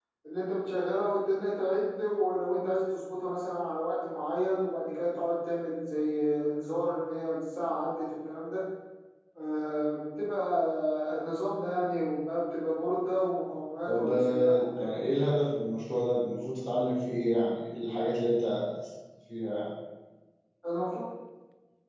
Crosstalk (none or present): present